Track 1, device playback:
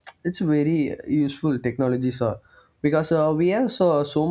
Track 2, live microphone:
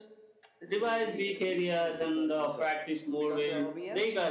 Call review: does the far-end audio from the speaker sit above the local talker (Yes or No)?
No